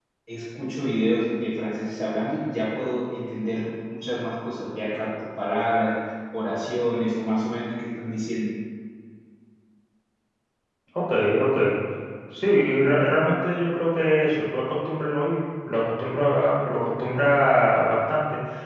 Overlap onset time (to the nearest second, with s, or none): none